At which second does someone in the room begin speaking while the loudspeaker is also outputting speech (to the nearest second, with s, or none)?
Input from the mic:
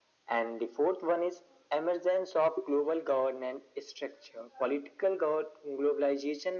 none